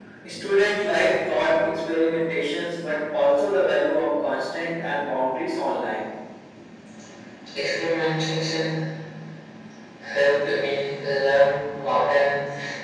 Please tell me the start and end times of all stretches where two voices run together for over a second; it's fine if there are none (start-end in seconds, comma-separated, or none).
none